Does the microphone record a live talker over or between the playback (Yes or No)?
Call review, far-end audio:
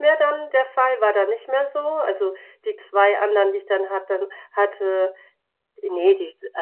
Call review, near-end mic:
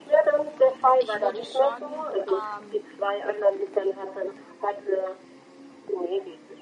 Yes